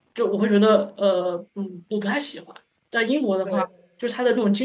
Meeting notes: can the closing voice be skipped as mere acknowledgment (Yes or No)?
Yes